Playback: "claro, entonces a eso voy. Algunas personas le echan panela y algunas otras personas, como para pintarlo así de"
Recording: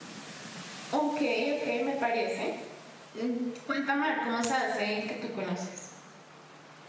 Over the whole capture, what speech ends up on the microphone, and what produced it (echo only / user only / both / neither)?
user only